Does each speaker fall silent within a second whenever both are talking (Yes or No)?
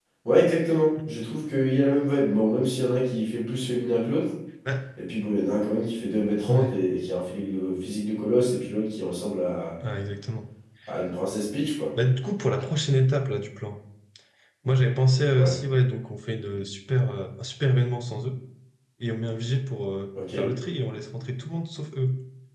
Yes